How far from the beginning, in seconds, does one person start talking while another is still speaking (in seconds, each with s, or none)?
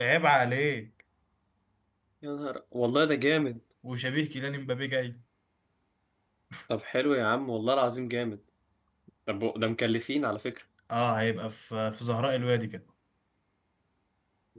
none